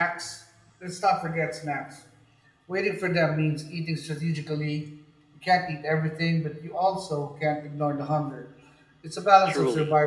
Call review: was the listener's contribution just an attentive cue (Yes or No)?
No